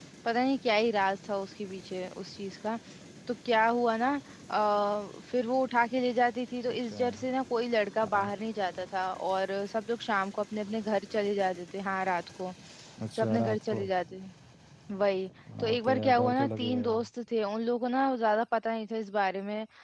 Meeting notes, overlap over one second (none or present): present